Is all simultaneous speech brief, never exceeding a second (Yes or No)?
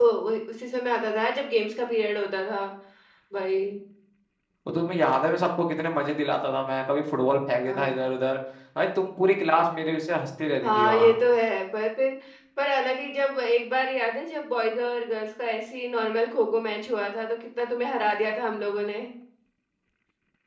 Yes